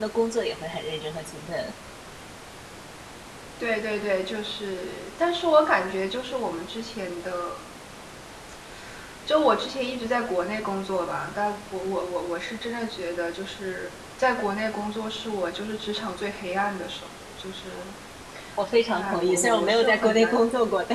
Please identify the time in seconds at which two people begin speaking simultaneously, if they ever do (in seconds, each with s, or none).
18.9 s